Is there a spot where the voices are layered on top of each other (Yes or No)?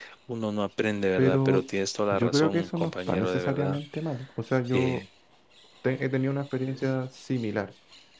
Yes